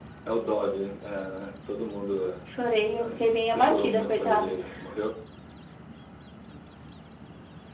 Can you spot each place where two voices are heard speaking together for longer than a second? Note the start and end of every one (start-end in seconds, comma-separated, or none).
3.0-4.5